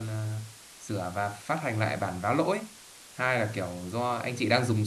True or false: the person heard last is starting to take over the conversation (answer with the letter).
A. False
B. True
A